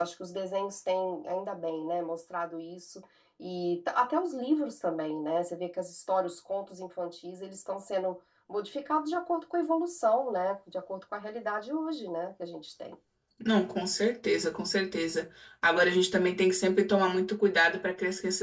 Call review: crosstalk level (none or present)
none